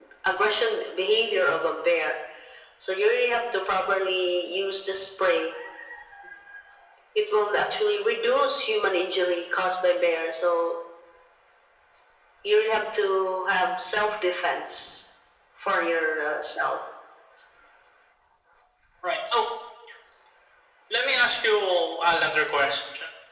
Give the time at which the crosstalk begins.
none

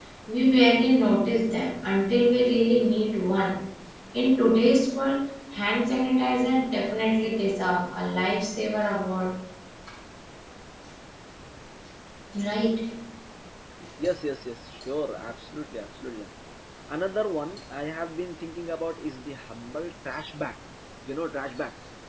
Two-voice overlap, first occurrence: none

